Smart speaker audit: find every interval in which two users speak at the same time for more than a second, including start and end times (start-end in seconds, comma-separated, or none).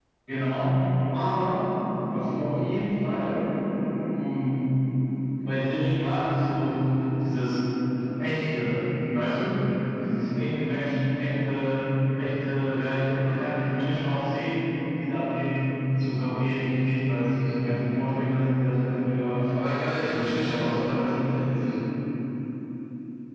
19.9-21.3